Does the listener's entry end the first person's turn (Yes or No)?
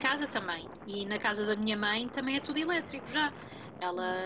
No